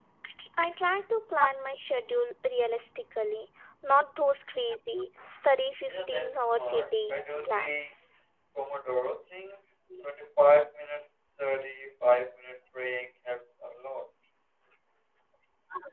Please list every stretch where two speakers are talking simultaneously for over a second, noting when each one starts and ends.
5.9-7.9

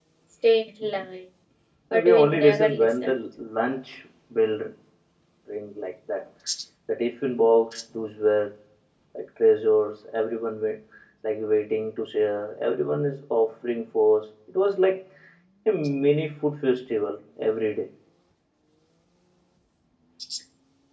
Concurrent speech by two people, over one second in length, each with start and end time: 1.9-3.1

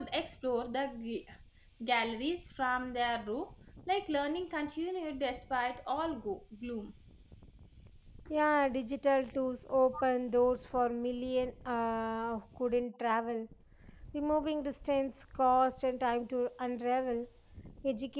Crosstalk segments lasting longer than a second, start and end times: none

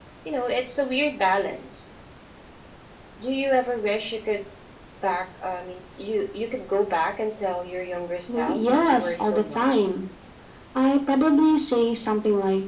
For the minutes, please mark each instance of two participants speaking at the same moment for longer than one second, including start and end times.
8.3-9.8

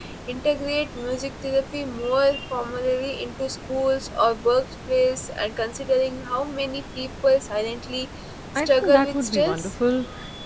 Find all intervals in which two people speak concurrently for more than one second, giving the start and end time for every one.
8.6-9.8

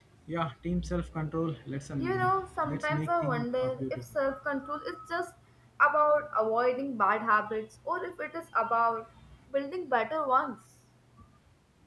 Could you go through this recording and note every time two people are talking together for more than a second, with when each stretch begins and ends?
2.0-4.2

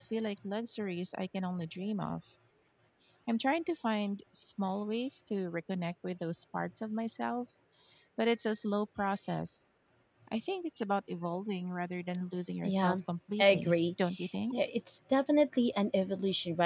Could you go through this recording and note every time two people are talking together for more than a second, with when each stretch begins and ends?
none

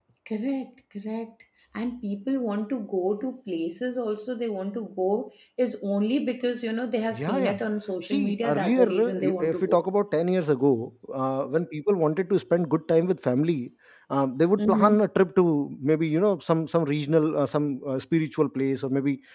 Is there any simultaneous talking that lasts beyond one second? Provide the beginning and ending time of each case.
8.1-9.8

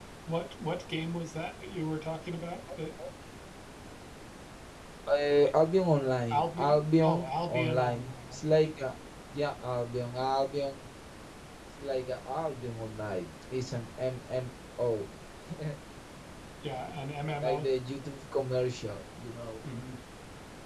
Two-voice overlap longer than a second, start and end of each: 6.3-8.4

